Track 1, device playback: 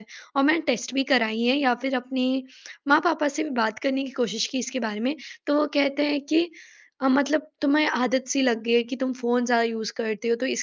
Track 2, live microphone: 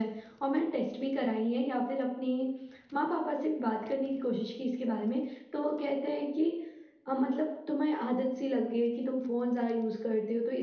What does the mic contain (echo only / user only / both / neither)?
echo only